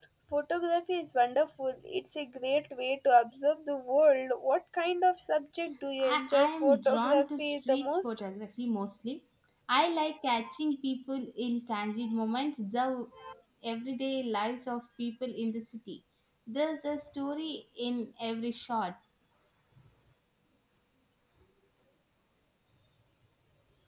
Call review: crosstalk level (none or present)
present